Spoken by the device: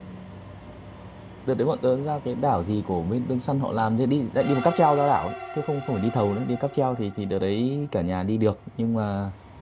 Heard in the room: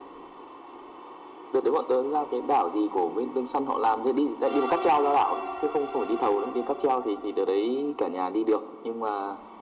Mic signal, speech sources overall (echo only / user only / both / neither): echo only